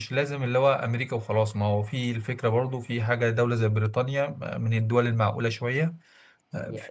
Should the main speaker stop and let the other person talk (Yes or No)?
Yes